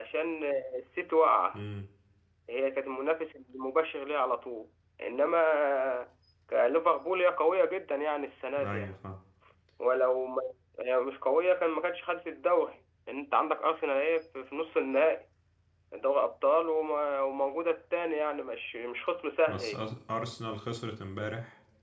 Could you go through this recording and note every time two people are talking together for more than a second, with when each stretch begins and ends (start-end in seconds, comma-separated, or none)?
none